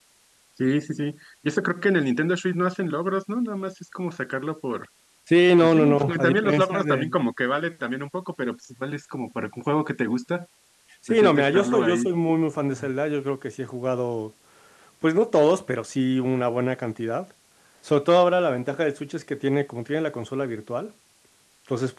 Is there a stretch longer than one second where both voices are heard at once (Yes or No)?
Yes